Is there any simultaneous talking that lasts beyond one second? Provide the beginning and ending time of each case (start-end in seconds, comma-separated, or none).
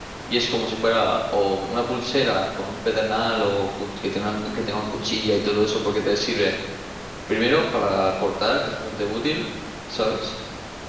none